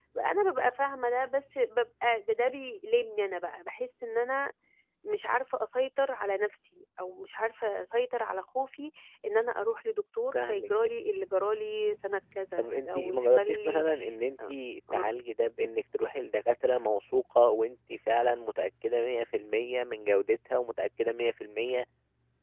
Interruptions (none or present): present